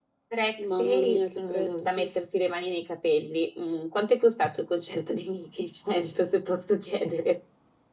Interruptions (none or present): present